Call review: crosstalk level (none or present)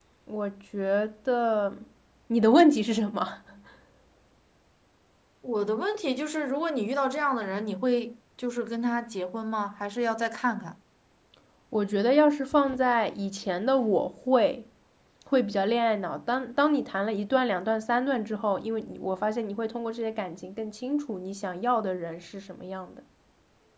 none